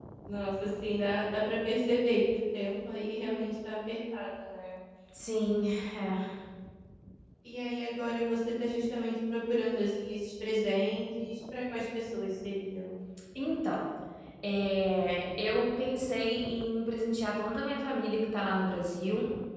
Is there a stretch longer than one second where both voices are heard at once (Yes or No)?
No